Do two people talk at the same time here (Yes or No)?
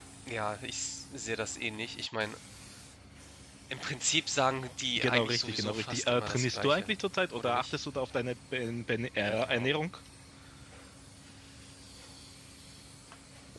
Yes